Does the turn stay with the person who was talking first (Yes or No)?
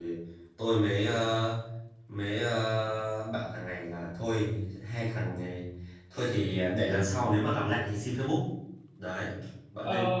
Yes